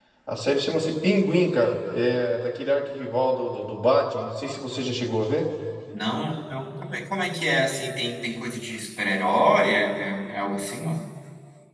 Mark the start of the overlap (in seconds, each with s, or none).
none